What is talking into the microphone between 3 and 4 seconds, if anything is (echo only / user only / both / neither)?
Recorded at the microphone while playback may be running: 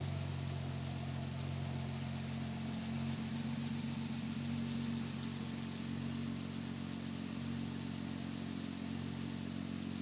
neither